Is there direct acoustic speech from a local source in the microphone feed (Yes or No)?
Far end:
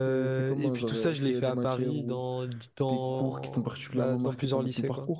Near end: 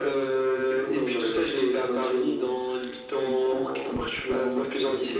No